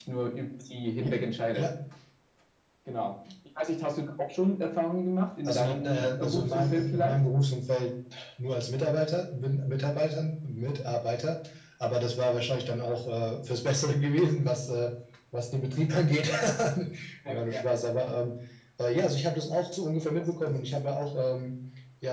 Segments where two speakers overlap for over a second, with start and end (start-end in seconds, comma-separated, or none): 5.5-7.2